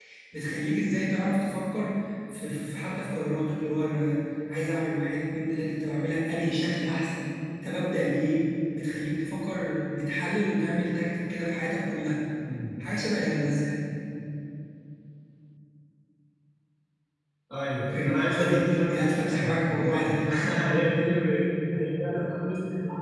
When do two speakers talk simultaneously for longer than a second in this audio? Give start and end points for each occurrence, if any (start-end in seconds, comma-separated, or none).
17.9-20.1